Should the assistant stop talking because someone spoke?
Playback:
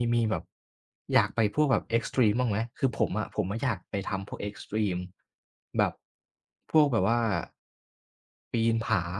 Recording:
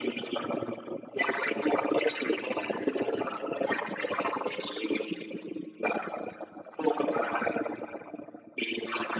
No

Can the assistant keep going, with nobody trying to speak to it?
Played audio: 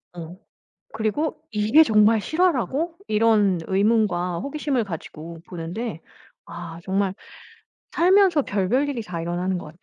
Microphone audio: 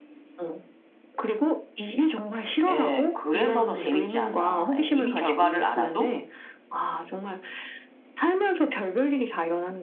No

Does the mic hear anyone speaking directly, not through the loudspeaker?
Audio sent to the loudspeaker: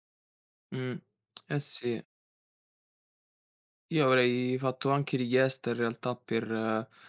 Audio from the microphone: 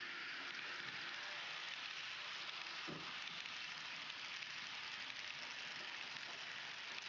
No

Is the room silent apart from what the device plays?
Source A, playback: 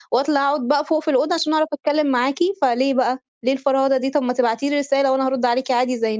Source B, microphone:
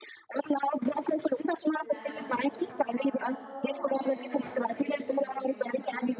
No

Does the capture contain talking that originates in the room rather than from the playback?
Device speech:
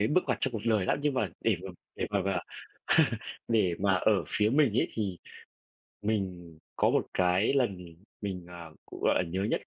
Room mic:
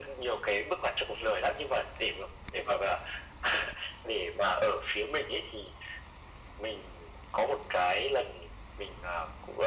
No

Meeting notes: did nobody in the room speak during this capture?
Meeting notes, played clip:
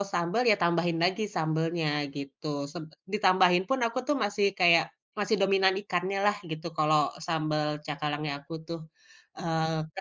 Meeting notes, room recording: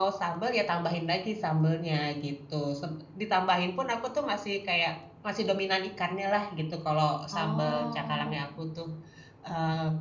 No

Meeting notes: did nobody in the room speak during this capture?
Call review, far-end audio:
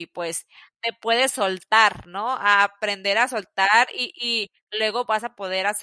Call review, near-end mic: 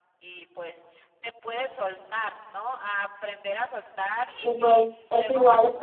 No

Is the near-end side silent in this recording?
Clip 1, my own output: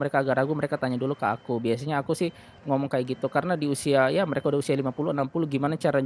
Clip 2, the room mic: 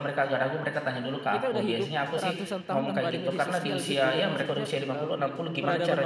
No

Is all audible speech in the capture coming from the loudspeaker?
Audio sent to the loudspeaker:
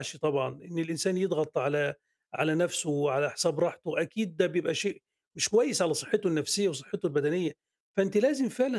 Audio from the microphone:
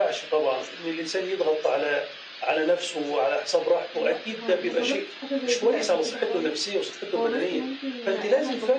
No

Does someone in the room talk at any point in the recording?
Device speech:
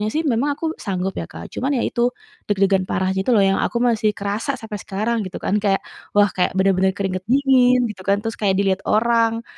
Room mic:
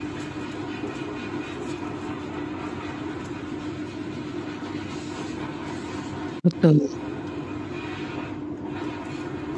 Yes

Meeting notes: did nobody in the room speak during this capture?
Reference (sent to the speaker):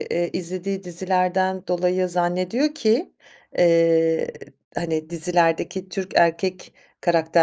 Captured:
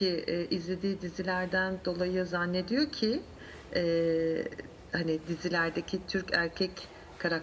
Yes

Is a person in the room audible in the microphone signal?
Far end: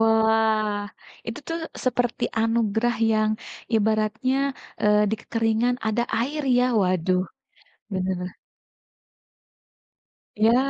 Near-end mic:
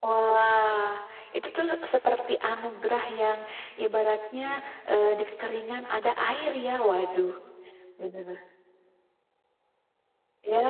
No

